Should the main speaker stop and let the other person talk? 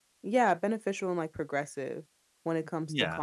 No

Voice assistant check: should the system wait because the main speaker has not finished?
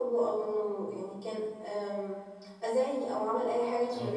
No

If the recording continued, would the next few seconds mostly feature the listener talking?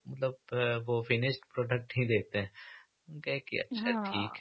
Yes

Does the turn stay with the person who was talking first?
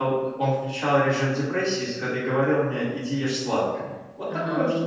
Yes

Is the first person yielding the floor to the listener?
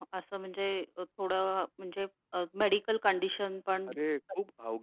Yes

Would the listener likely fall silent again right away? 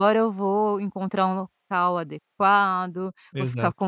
Yes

